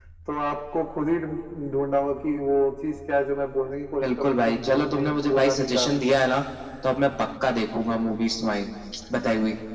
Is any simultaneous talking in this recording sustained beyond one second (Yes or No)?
Yes